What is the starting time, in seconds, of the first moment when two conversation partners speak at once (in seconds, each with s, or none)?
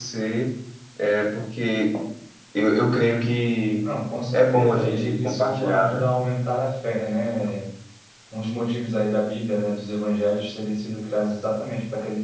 4.3 s